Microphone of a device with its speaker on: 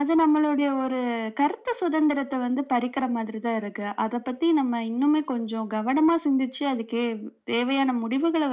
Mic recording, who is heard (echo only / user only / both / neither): echo only